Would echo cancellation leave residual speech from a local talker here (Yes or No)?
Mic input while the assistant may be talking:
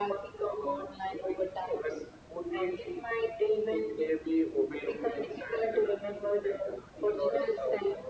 No